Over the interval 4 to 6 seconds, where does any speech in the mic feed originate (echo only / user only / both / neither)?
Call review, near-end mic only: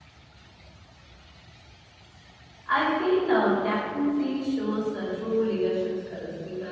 user only